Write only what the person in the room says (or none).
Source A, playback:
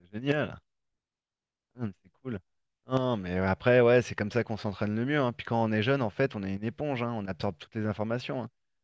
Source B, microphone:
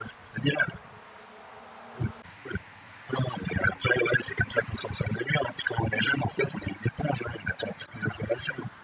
none